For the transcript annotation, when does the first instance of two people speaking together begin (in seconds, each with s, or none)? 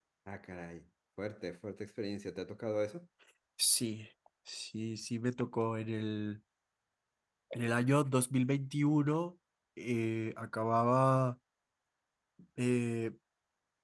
none